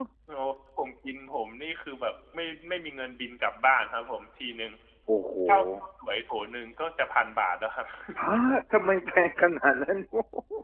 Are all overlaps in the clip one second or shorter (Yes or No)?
Yes